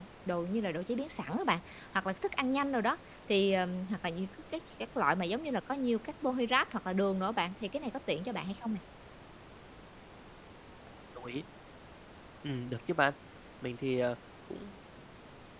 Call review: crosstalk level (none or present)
none